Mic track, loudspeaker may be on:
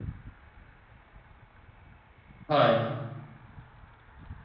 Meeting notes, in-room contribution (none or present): present